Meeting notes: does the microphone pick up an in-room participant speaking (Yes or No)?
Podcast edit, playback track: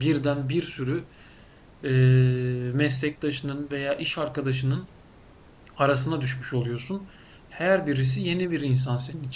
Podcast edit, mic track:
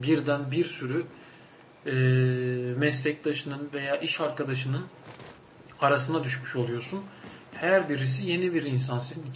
No